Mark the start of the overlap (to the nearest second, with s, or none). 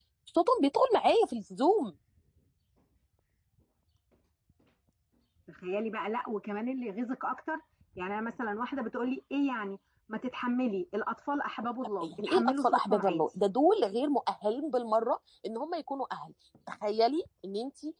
12 s